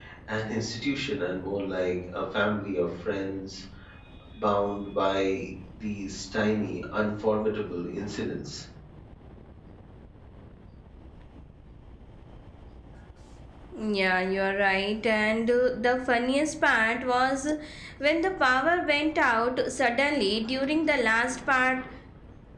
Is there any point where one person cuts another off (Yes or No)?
No